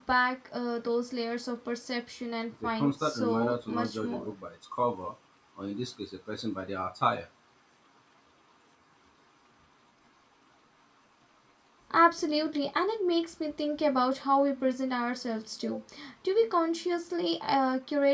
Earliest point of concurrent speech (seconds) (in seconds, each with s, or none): 2.8 s